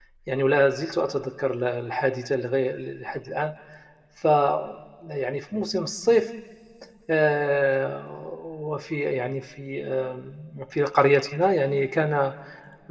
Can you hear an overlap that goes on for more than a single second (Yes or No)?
No